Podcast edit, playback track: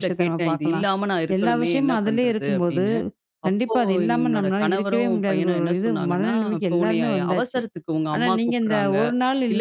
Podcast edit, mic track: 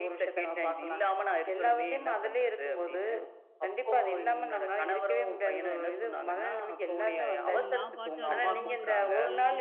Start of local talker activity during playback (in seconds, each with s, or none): 7.4 s